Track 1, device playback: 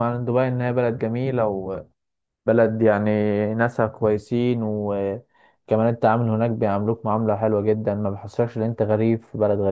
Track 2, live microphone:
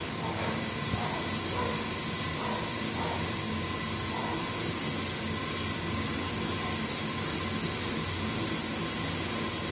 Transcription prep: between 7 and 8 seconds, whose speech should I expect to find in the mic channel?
neither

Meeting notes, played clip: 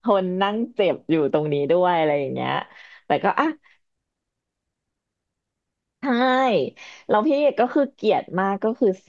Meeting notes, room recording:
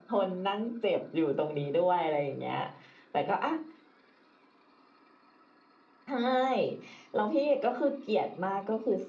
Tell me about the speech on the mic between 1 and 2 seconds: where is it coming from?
echo only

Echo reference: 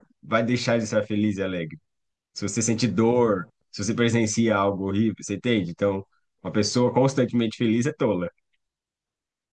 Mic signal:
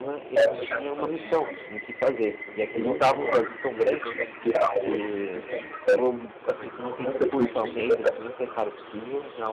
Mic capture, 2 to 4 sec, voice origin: both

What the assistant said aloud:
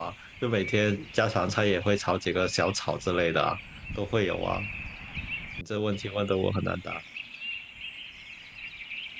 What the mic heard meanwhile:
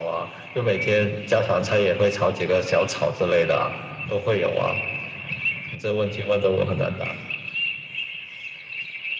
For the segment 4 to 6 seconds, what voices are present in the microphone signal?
echo only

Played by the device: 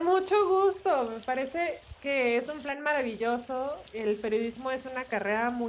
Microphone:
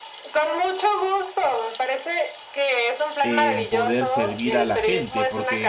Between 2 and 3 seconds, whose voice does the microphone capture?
echo only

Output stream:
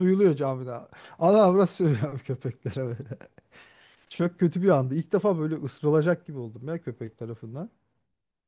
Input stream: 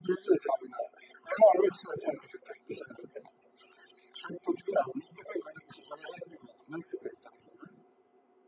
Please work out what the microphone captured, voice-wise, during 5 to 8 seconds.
echo only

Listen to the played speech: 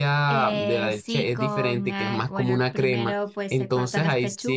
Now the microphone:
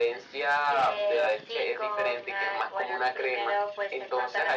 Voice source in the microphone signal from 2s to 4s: echo only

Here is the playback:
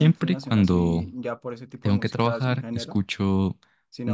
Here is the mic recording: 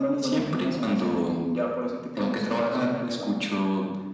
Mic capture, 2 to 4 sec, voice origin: echo only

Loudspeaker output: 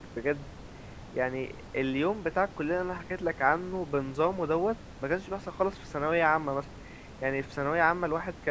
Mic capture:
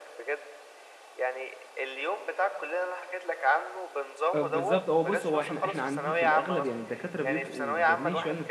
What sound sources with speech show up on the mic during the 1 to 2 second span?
echo only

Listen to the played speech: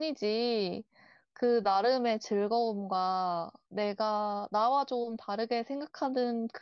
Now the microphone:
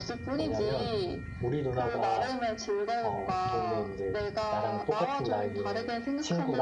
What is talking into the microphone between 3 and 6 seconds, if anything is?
both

